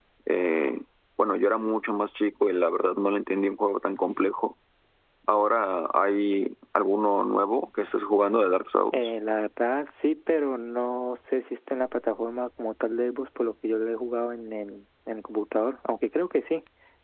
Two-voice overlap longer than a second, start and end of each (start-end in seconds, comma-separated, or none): none